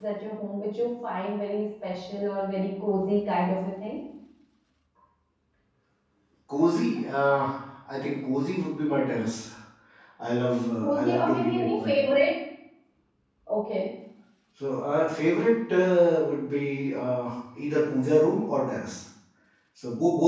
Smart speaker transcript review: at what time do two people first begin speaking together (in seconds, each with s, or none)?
10.8 s